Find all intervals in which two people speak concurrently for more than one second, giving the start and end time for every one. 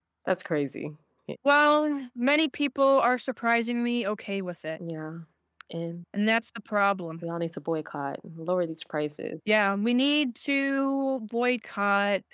none

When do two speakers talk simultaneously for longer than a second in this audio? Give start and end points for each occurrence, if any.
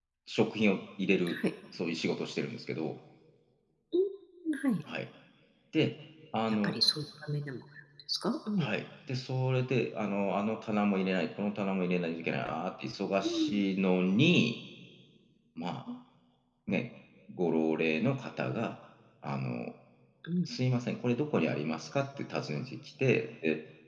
none

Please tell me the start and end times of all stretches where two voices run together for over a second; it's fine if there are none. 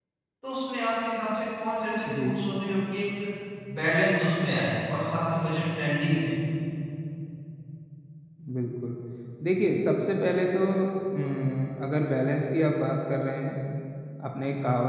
none

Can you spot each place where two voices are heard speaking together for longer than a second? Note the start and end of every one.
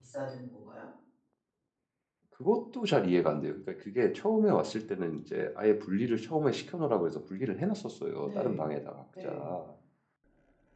none

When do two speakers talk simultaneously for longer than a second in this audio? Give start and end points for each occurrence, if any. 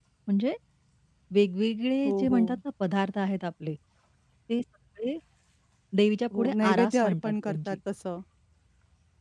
6.4-7.8

